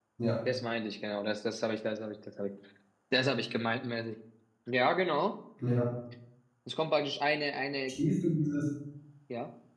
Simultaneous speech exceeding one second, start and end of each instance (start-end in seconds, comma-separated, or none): none